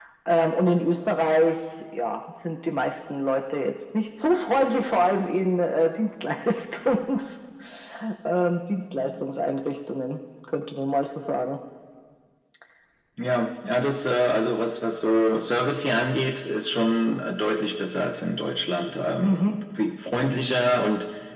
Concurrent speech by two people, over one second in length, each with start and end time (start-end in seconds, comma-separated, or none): none